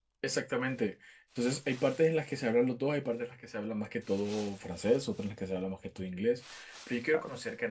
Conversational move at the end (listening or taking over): listening